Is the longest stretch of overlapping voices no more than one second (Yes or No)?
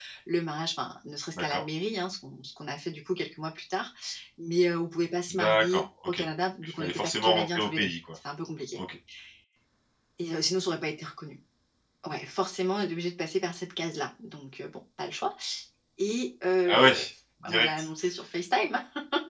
No